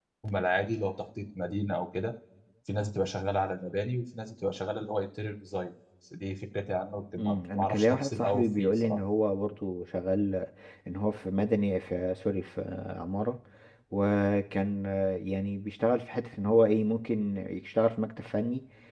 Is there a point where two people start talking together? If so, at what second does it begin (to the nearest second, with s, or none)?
7 s